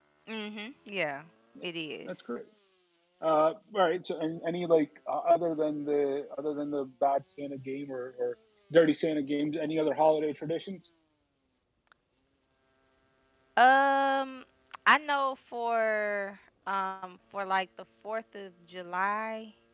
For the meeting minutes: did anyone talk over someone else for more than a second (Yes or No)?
No